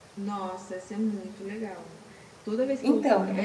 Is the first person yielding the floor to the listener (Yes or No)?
No